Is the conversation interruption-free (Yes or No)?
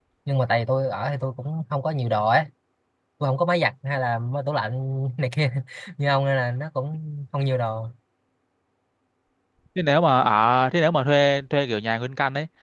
Yes